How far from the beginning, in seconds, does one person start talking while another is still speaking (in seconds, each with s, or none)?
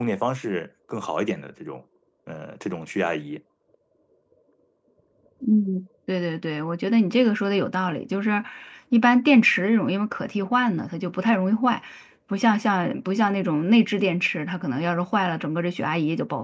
none